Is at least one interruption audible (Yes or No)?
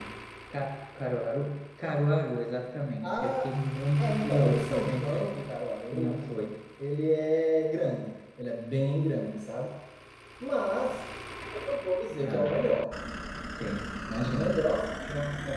Yes